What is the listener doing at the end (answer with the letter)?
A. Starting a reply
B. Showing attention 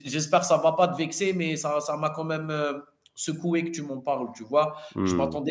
B